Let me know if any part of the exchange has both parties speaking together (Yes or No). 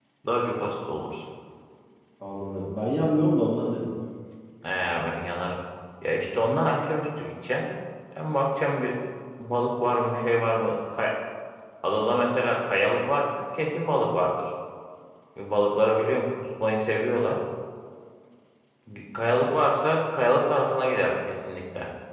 No